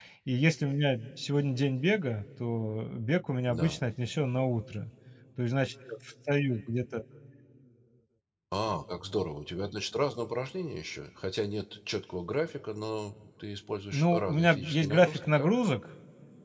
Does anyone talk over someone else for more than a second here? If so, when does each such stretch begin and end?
13.9-15.5

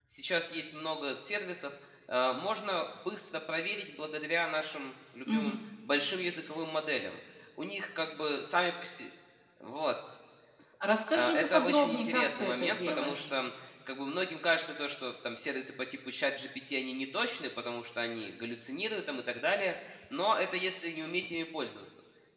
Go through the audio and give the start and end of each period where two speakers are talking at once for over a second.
11.1-13.2

